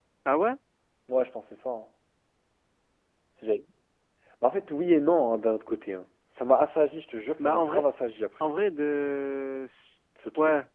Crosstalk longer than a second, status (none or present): none